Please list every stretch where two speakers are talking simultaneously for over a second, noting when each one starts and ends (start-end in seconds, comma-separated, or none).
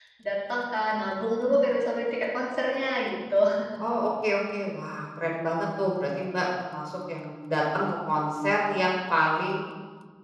none